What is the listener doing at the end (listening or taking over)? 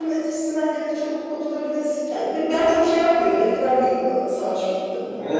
taking over